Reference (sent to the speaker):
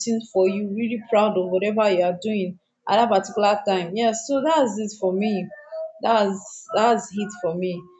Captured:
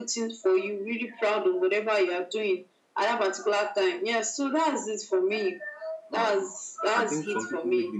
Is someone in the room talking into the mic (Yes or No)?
Yes